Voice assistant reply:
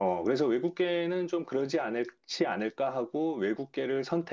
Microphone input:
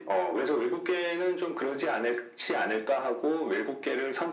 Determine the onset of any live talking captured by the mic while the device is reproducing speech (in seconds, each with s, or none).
none